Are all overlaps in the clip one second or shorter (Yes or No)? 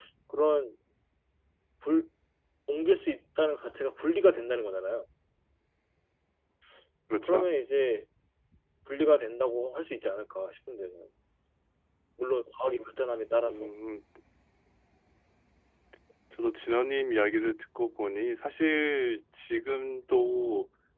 Yes